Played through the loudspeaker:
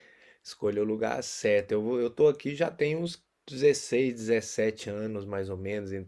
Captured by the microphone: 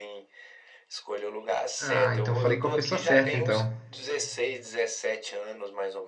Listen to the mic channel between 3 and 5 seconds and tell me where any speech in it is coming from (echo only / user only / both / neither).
both